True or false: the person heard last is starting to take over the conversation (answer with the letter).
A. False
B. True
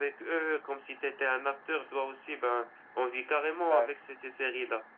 A